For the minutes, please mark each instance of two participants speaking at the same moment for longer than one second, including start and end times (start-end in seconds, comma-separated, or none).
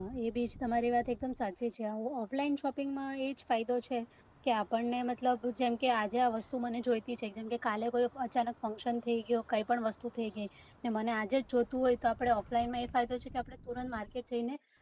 none